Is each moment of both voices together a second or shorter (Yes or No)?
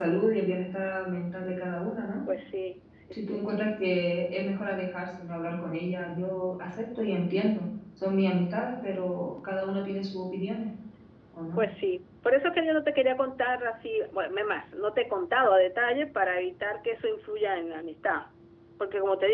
Yes